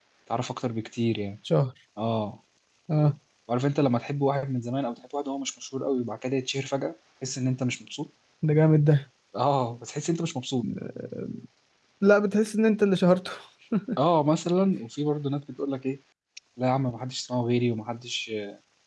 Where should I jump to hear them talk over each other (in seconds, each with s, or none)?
none